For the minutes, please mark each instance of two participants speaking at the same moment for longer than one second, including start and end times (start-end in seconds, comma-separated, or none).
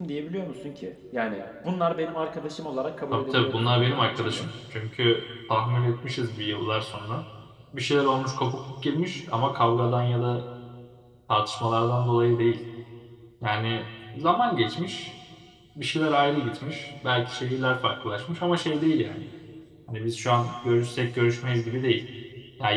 3.1-4.4